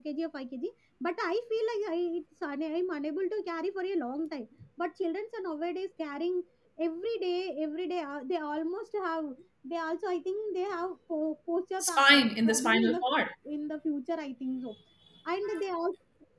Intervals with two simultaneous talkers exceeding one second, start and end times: 11.8-13.0

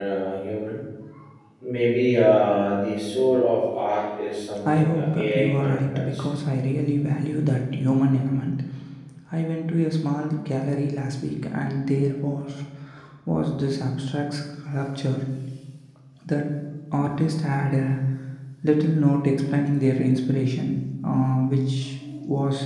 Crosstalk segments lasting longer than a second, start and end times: 4.7-6.2

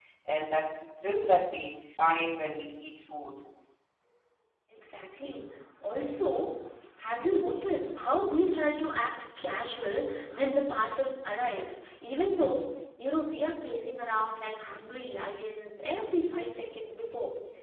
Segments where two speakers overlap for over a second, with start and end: none

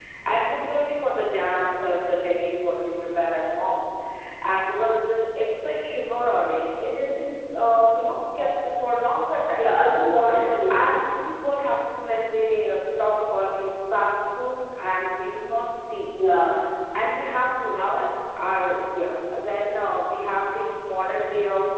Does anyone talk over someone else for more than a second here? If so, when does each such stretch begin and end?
none

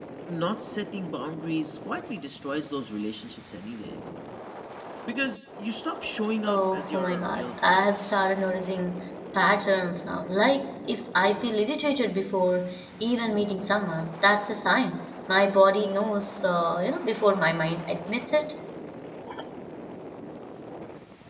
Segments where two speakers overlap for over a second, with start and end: 6.5-8.1

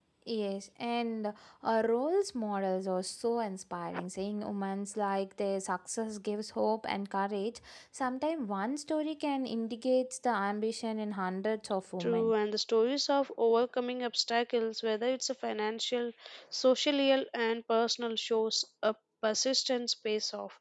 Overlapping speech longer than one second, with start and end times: none

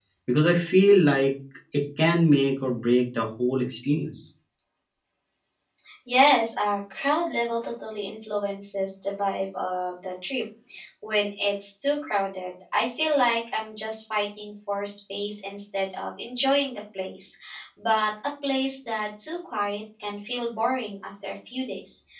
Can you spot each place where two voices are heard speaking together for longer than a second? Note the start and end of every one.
none

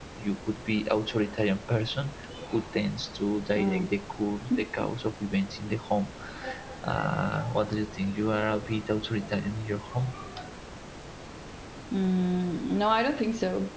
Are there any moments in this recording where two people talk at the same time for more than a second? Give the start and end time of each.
none

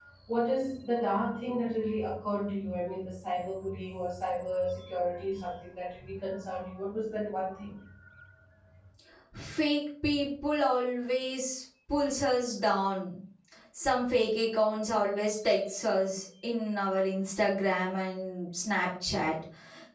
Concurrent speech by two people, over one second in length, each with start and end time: none

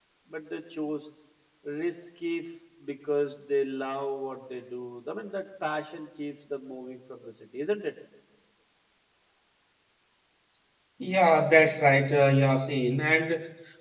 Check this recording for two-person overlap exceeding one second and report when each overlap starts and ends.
none

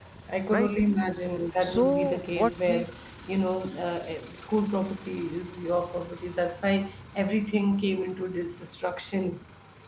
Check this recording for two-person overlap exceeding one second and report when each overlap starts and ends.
1.6-2.9

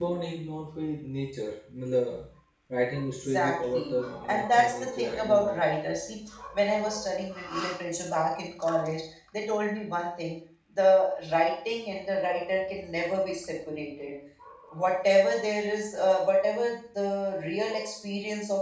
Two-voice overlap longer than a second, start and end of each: 3.2-5.6

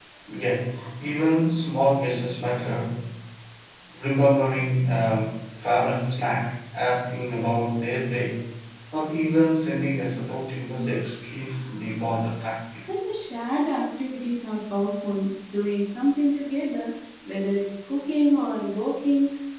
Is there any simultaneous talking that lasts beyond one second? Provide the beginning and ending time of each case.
none

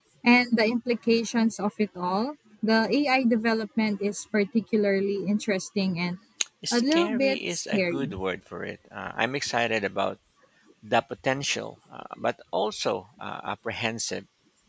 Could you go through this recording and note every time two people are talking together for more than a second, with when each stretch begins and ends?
6.7-8.1

